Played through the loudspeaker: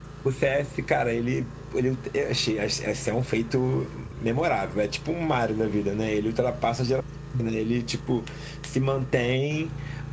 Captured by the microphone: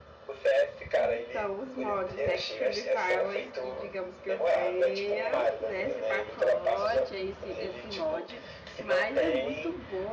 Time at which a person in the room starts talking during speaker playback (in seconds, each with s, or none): 1.0 s